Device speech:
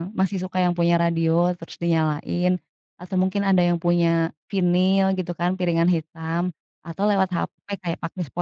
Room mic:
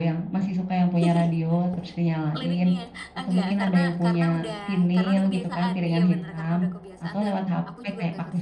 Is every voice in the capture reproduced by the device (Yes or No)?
No